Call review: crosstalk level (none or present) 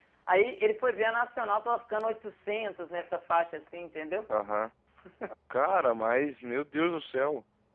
none